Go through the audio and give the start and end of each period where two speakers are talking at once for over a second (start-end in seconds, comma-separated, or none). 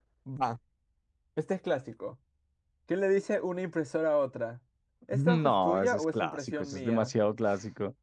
5.1-7.1